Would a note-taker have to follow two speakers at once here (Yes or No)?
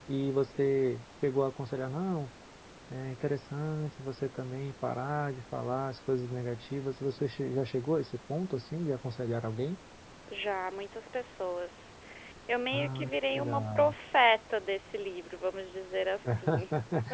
Yes